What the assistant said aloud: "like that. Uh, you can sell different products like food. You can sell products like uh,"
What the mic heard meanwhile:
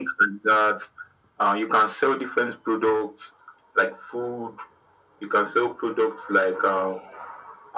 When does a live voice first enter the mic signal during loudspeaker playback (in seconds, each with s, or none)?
none